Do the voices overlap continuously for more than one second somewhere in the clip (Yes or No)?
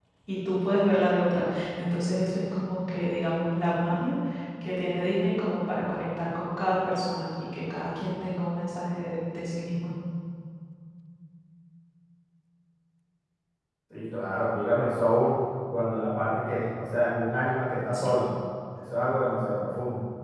No